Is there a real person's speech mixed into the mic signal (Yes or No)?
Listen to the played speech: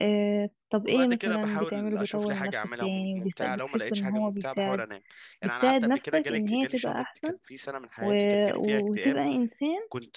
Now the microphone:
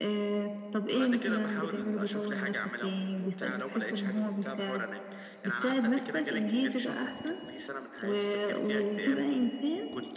No